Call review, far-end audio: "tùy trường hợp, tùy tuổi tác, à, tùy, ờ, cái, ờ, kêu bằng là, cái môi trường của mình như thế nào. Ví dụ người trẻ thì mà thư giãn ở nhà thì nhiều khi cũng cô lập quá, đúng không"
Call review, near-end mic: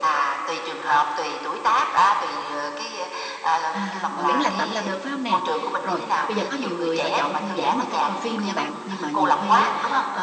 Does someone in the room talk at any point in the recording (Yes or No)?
Yes